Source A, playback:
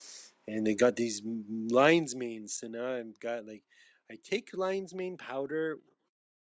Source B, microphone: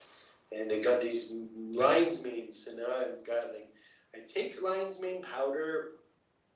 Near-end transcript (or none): none